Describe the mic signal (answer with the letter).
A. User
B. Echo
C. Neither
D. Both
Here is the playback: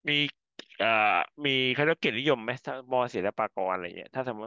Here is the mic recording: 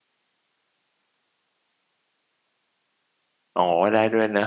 A